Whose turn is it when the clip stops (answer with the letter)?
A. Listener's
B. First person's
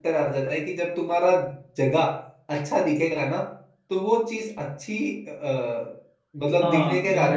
A